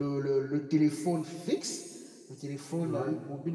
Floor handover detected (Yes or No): No